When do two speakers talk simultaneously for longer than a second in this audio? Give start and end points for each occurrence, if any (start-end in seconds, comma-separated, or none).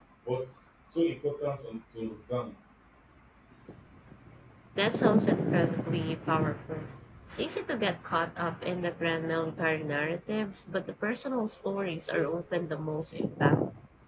none